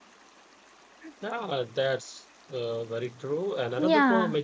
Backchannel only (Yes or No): Yes